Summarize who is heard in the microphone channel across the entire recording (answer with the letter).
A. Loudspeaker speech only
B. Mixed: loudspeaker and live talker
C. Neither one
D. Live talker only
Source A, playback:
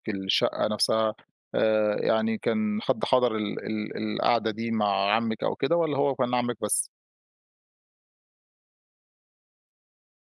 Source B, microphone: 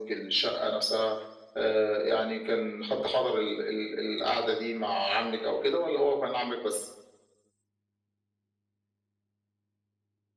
A